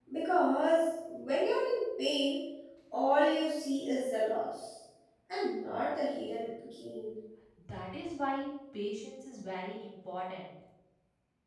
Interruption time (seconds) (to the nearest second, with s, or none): none